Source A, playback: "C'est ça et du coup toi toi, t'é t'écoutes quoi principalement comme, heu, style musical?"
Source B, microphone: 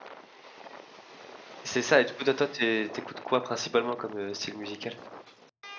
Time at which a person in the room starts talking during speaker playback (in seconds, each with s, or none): none